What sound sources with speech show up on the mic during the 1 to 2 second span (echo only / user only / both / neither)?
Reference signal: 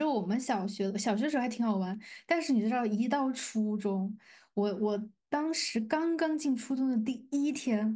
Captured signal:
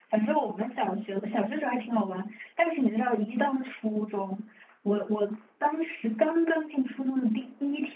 echo only